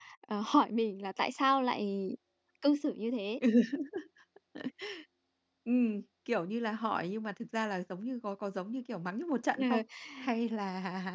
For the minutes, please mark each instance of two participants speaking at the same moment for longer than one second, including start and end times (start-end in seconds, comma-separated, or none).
none